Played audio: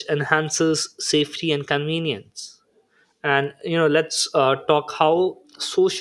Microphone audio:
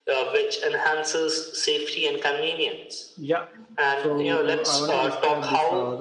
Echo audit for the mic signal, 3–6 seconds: both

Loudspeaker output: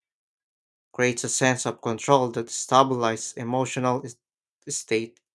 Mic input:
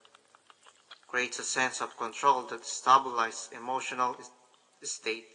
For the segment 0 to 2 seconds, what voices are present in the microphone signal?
echo only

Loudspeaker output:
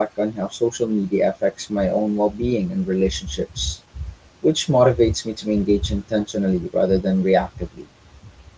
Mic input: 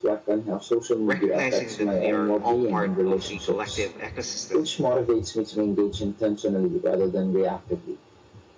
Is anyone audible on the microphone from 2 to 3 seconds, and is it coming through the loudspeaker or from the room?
both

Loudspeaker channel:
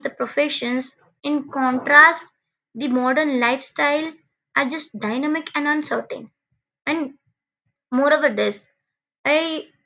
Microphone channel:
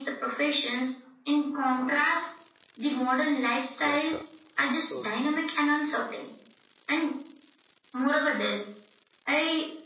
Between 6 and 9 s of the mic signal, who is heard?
echo only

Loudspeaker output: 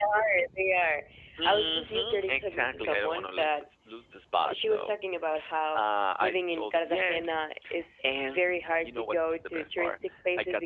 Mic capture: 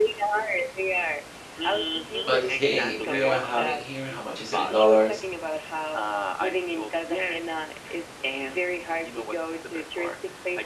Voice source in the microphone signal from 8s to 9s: echo only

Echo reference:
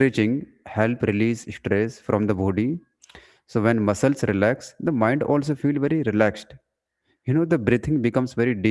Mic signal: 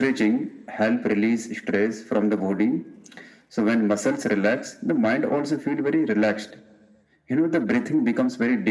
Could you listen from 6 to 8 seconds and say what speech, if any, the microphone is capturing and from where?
echo only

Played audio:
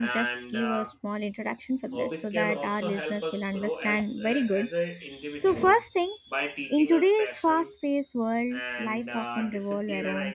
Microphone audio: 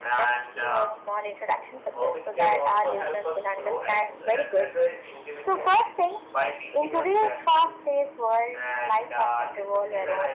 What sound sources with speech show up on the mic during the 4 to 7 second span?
echo only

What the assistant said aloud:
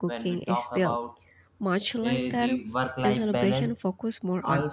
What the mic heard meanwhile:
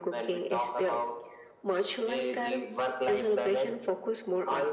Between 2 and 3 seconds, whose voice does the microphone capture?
echo only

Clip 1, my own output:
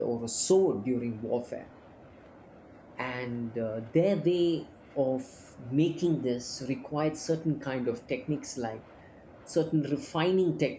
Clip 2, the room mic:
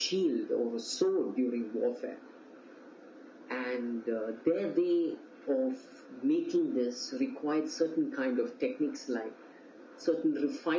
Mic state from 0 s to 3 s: echo only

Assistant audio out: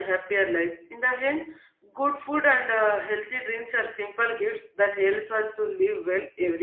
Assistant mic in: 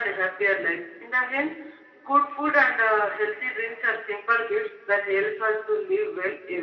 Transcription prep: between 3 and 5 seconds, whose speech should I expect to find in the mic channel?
echo only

